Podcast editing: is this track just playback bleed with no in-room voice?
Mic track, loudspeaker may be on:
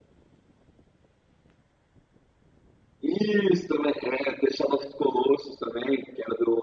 Yes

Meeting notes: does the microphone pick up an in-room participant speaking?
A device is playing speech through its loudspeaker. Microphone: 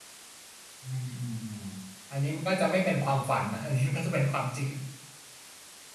Yes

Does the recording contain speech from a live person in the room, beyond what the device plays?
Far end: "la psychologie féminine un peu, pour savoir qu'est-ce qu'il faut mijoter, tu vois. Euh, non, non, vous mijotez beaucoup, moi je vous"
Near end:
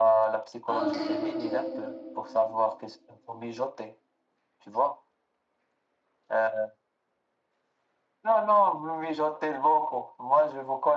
Yes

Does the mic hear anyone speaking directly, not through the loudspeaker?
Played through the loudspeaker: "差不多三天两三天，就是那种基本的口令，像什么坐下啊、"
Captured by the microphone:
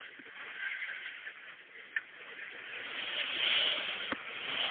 No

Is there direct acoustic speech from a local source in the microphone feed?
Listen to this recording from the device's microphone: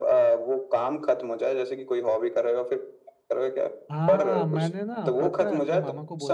Yes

